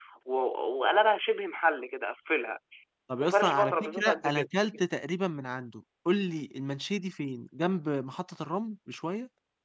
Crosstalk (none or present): present